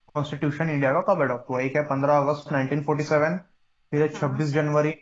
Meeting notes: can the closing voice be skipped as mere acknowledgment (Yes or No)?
Yes